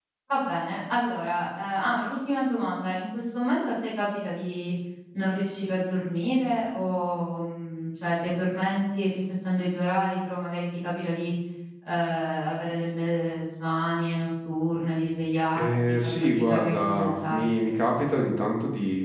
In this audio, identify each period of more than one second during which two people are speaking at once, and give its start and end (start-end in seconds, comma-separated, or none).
15.6-17.7